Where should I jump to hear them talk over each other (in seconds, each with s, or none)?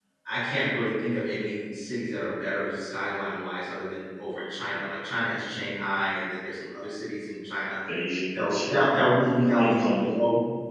8.3 s